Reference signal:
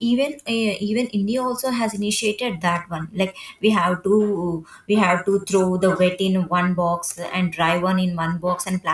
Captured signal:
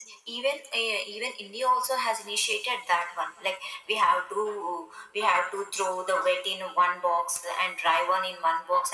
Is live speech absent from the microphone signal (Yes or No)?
Yes